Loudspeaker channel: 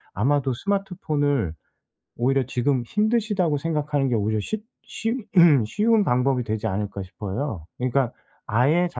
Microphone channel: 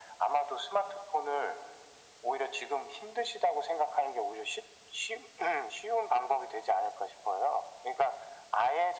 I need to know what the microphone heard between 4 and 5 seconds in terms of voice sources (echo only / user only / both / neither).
echo only